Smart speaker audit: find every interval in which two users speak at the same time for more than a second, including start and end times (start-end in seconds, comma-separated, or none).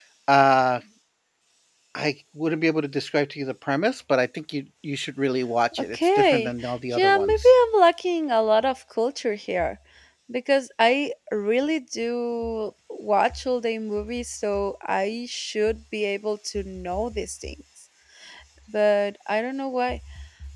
5.8-7.5